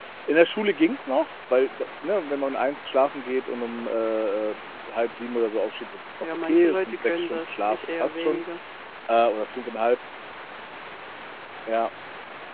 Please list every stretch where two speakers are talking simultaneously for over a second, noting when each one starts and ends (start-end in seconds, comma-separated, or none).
6.4-8.4